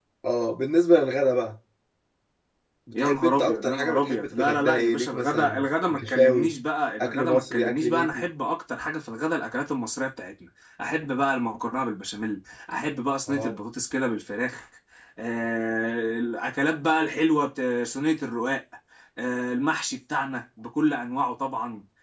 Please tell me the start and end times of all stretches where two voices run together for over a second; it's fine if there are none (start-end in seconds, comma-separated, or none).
2.9-6.5, 7.0-8.2